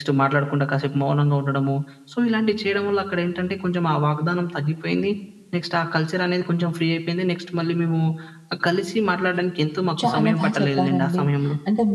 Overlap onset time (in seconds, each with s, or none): 10.0 s